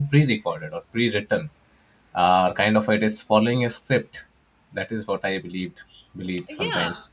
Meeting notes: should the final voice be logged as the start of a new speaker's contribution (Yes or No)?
Yes